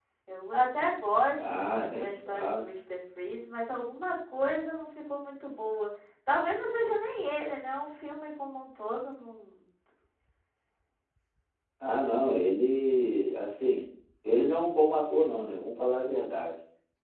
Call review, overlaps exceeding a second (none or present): present